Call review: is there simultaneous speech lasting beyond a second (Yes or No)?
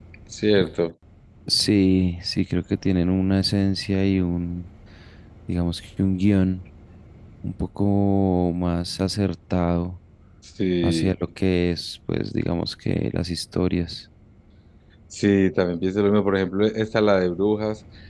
No